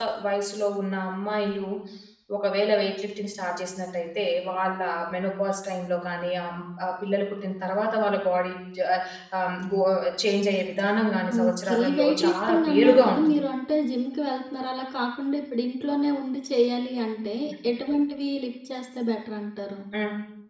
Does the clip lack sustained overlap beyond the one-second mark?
No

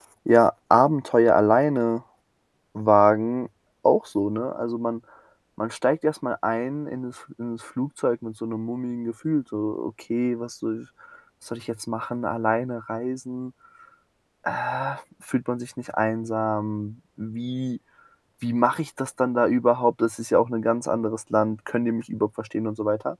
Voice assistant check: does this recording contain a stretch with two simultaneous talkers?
No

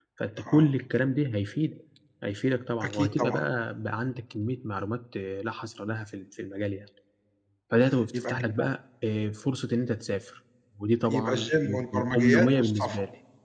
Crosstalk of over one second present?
Yes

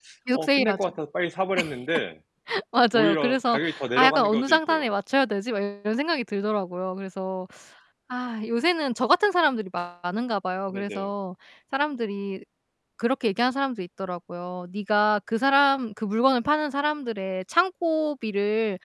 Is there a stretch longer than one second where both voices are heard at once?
Yes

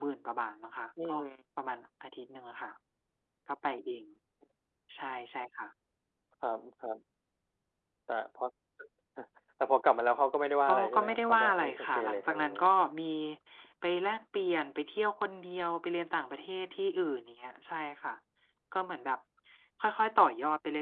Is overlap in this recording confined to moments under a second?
No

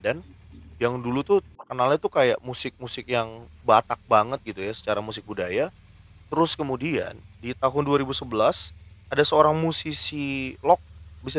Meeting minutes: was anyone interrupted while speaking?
No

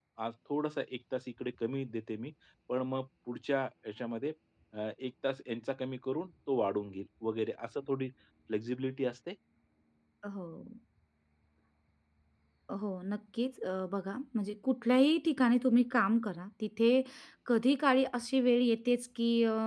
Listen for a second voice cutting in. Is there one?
No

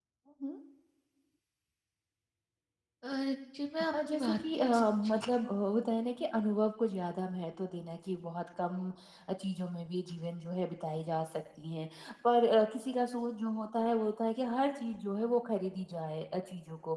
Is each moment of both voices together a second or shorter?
No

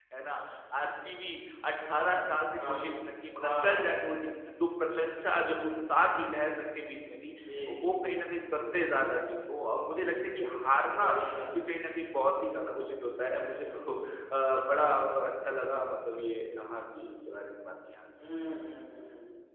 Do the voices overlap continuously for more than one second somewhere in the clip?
No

